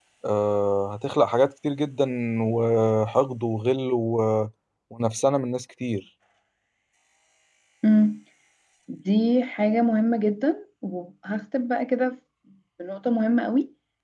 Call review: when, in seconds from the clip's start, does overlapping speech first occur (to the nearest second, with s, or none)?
none